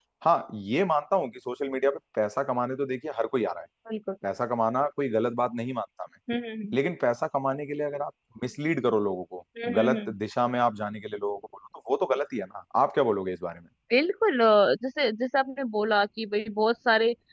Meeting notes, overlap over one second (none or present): none